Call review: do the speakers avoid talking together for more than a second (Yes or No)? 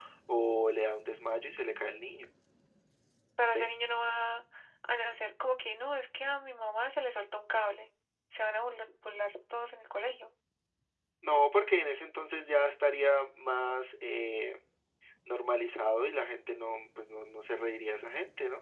Yes